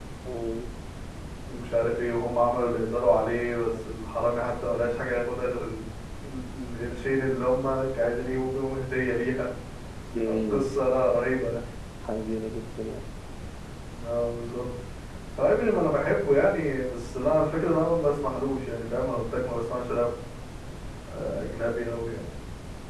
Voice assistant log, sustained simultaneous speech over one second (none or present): none